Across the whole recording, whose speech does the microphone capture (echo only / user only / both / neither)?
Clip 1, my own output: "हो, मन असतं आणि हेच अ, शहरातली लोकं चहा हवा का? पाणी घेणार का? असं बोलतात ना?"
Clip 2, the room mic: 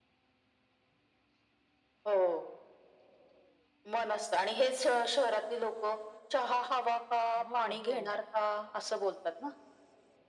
both